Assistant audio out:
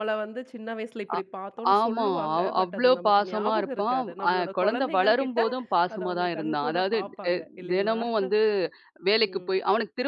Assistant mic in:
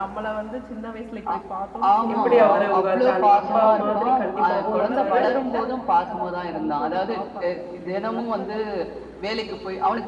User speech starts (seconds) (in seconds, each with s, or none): 2.1 s